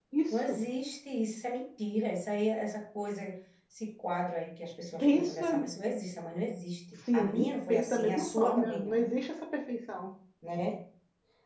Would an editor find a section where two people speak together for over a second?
Yes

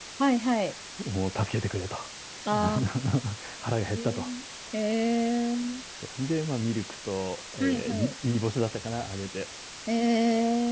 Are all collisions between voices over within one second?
Yes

